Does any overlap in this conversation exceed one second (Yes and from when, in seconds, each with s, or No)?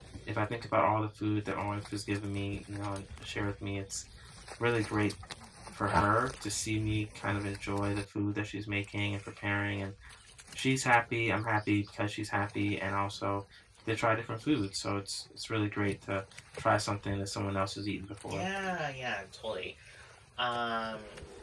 No